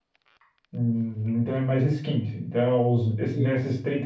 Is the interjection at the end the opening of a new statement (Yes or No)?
No